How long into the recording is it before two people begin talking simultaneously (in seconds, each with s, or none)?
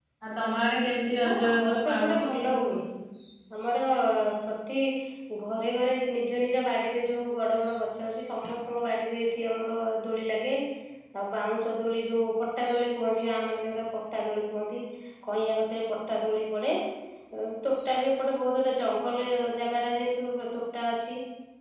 1.2 s